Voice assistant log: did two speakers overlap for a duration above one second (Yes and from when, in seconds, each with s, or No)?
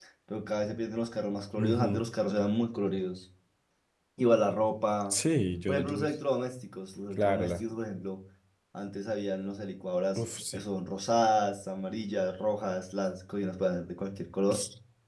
No